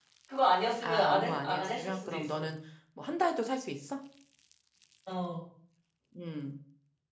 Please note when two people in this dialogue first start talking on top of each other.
0.8 s

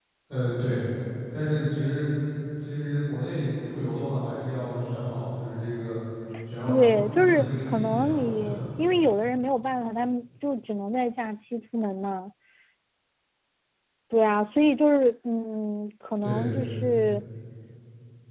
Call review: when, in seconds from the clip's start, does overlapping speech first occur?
6.7 s

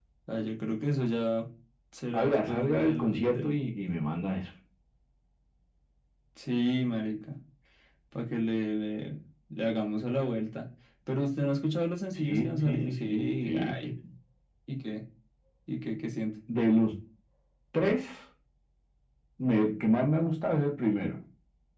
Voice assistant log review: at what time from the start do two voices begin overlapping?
2.1 s

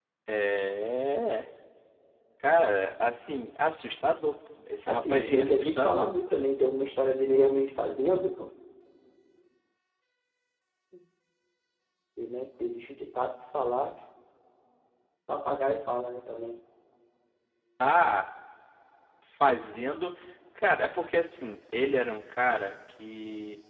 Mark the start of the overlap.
4.9 s

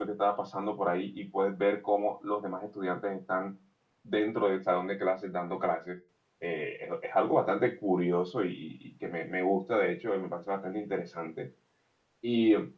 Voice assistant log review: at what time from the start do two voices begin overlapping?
none

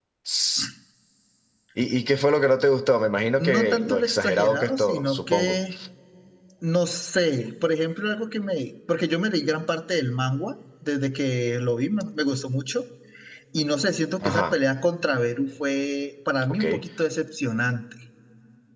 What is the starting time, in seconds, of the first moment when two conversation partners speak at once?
3.4 s

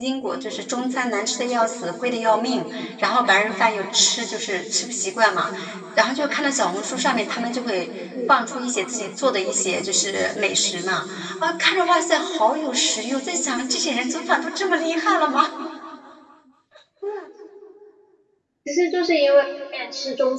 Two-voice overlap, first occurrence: none

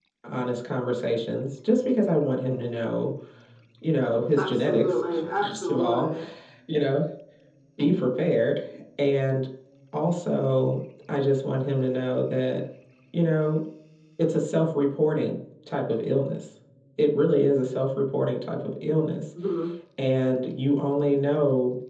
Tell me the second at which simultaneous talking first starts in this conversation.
4.4 s

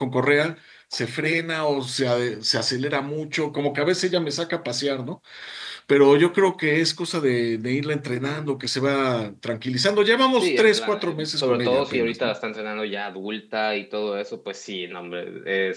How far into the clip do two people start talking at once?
10.4 s

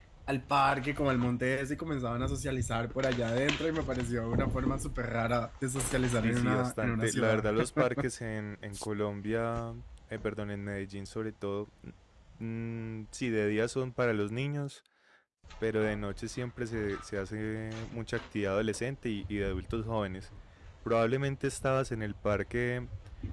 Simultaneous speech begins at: 6.1 s

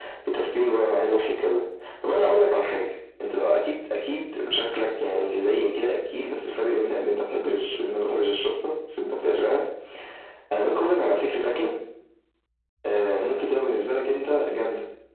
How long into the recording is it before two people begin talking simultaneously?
none

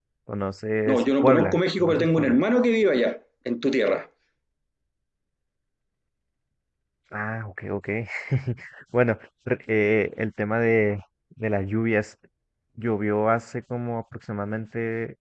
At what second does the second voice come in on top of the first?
0.9 s

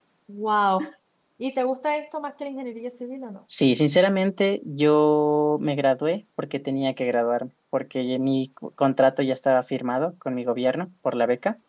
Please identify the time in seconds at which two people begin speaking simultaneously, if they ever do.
none

